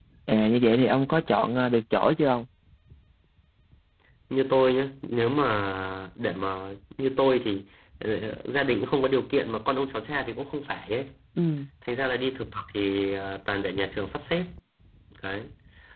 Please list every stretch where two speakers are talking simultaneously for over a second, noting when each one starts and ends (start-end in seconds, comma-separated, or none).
none